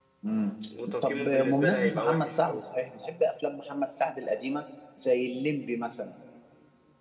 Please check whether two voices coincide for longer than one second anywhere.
Yes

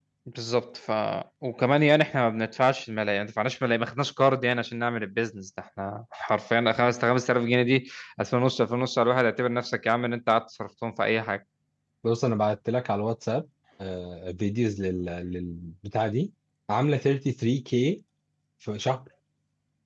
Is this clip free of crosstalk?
Yes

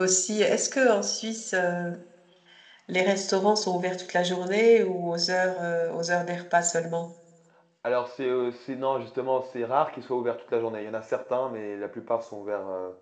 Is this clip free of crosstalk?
Yes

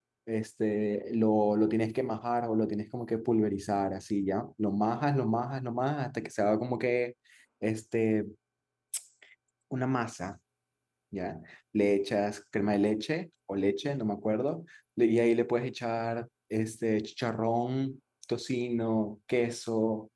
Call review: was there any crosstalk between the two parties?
No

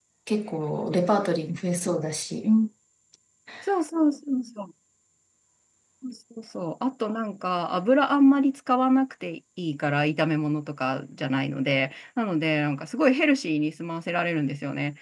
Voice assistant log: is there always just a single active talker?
Yes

